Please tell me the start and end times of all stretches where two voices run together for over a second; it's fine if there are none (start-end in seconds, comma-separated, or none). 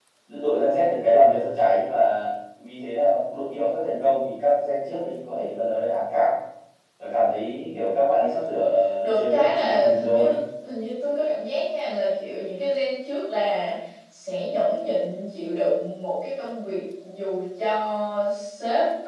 9.0-10.4